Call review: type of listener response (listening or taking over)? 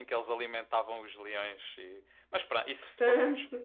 listening